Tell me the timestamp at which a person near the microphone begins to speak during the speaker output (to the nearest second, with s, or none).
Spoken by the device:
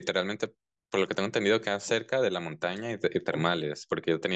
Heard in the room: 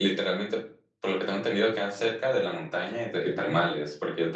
none